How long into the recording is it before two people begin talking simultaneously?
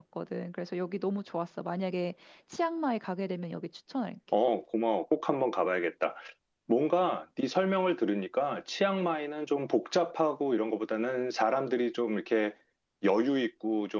none

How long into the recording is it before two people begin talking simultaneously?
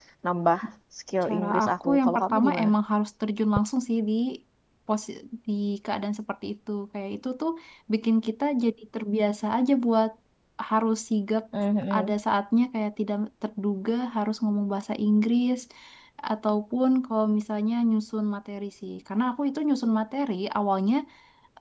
1.3 s

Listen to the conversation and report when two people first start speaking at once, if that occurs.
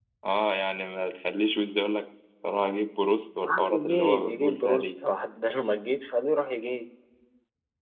3.4 s

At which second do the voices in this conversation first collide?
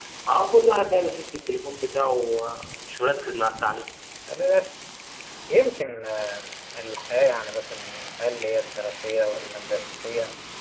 none

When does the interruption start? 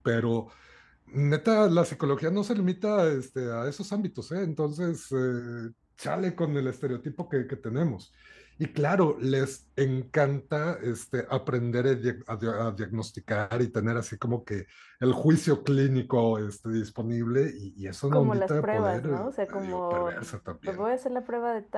18.1 s

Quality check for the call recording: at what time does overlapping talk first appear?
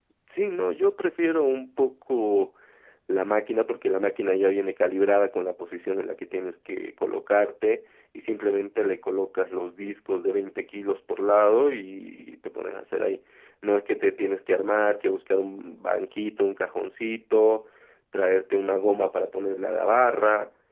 none

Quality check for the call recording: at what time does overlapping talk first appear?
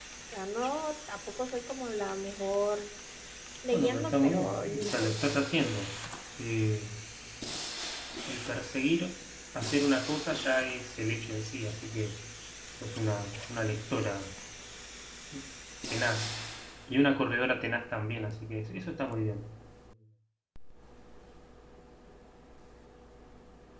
3.7 s

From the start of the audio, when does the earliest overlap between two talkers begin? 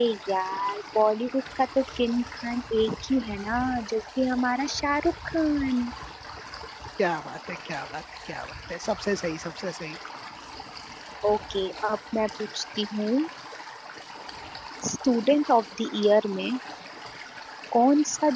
none

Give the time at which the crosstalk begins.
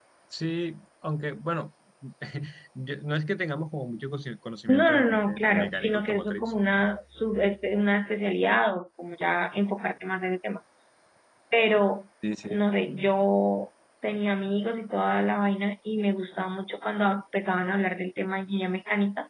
4.7 s

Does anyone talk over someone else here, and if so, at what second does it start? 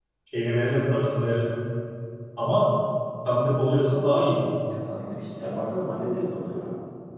none

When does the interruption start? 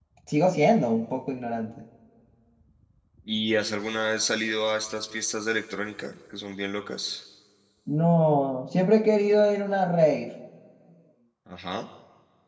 none

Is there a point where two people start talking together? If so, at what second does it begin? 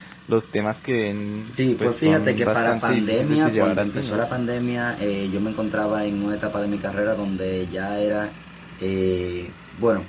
1.5 s

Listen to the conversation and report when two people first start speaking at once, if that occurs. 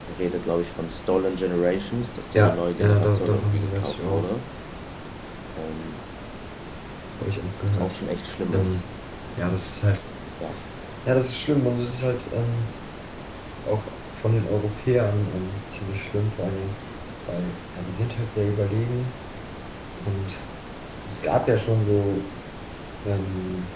2.4 s

